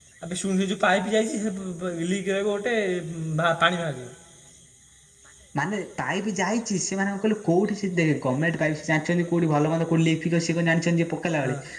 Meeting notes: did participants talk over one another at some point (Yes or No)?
No